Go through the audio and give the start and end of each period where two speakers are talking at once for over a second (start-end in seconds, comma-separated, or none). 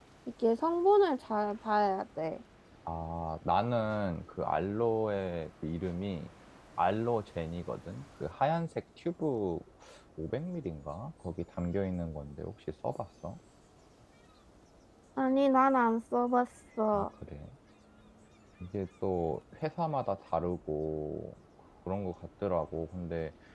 none